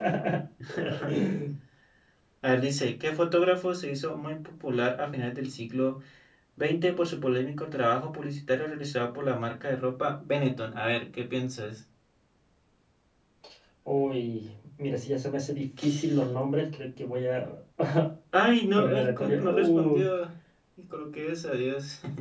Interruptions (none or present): present